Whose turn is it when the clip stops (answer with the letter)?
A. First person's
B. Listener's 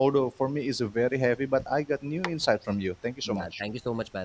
B